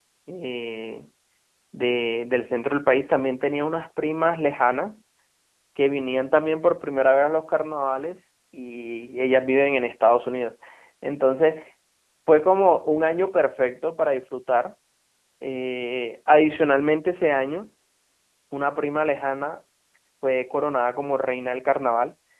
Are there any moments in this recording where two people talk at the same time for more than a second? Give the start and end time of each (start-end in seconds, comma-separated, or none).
none